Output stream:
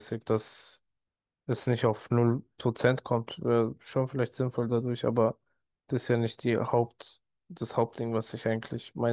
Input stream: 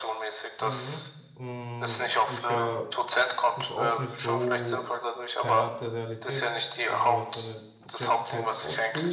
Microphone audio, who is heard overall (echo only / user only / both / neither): both